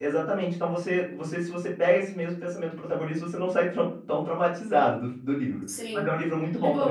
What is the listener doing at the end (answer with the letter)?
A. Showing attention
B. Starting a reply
B